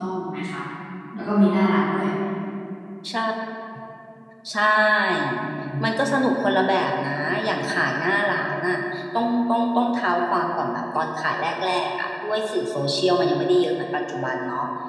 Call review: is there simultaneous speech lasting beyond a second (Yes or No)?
No